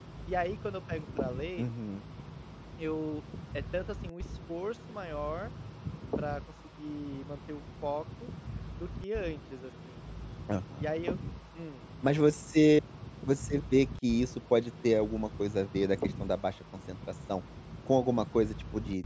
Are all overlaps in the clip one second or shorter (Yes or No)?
Yes